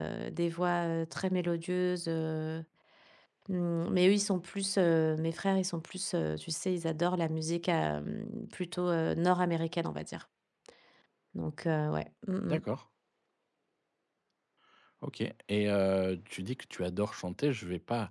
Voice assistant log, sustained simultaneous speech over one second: none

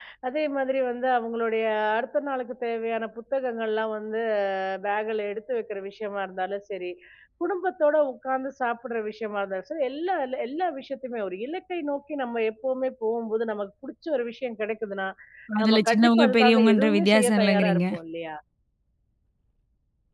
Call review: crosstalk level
present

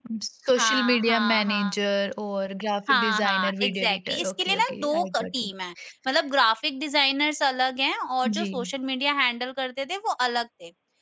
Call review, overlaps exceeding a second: present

